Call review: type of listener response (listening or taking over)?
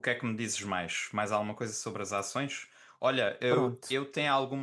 listening